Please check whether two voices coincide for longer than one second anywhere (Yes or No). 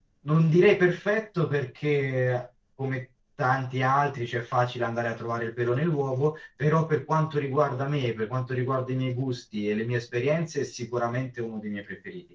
No